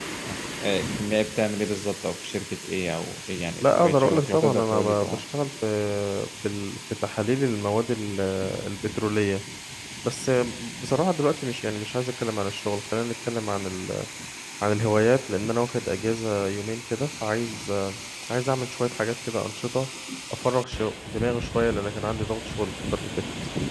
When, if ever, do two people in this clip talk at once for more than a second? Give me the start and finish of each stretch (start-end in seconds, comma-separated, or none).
3.6-5.2